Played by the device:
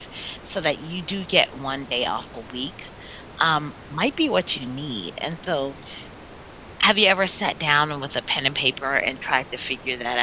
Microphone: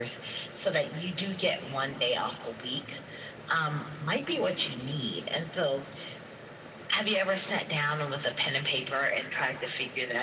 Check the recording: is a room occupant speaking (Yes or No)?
No